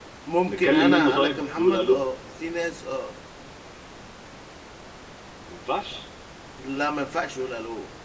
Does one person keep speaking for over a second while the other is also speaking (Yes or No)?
Yes